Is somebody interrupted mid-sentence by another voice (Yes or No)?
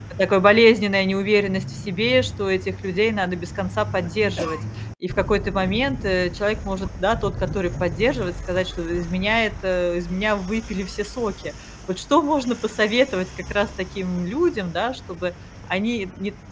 No